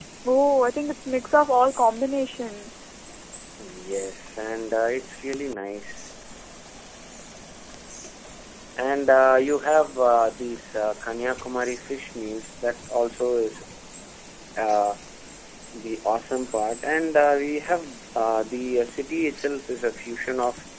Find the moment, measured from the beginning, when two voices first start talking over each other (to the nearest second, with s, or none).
none